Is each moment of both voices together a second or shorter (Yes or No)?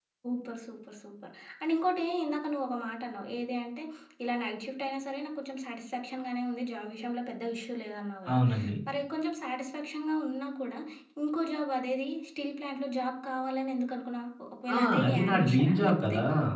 No